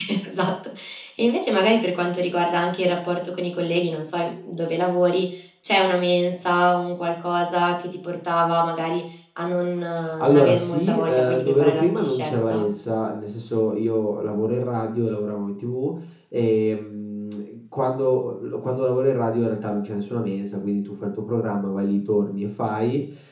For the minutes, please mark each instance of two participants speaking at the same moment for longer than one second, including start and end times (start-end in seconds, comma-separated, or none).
10.2-12.6